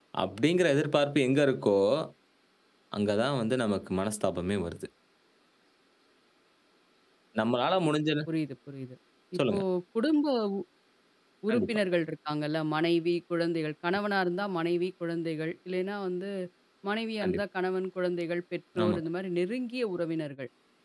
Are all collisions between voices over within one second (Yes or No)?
Yes